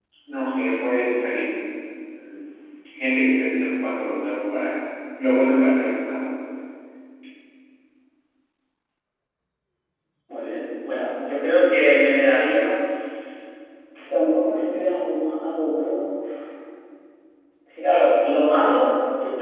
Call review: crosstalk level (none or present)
none